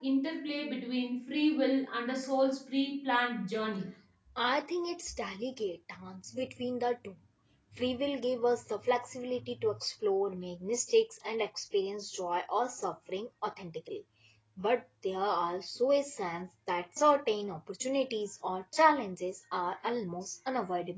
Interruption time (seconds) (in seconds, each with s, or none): none